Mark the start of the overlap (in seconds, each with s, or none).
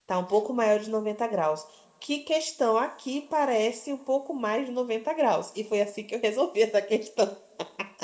none